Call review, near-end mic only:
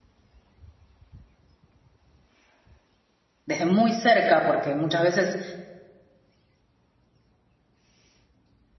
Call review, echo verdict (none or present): none